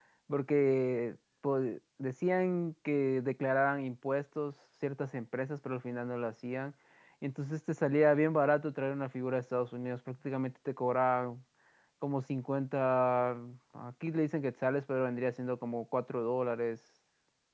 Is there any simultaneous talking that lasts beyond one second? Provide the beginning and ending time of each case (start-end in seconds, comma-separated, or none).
none